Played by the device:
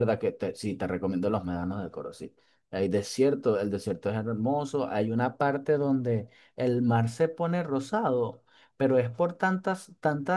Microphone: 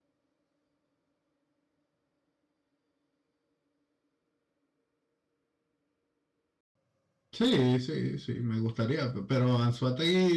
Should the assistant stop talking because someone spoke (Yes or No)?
Yes